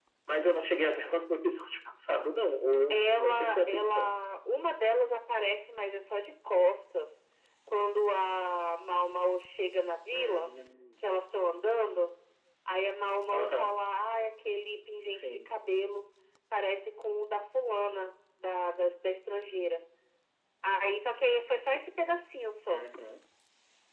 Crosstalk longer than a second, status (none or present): present